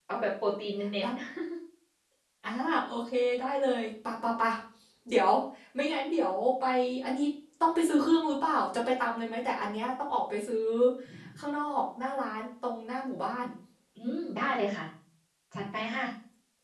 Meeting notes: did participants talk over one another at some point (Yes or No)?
No